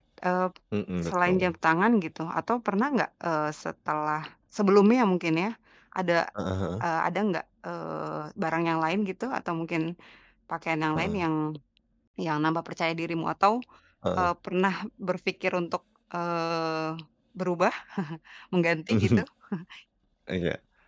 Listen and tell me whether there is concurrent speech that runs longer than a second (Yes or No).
No